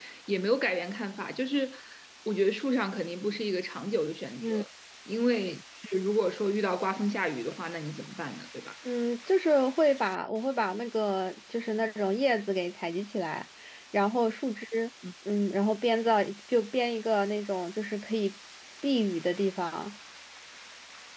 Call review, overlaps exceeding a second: none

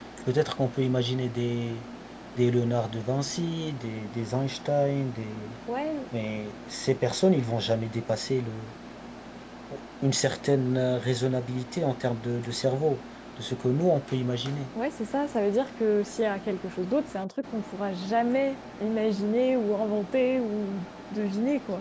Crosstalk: none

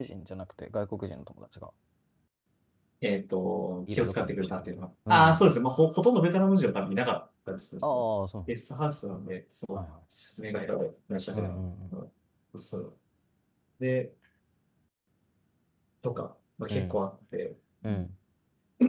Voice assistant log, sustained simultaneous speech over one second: present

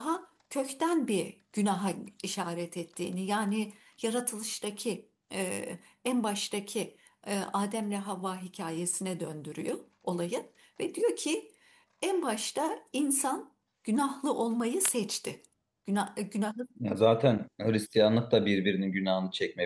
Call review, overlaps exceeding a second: none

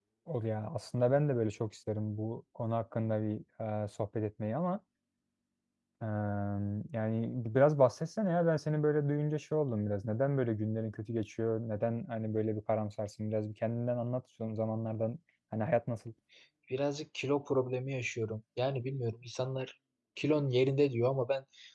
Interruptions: none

